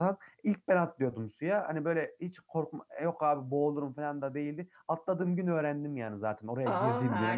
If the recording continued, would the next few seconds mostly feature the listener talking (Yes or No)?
No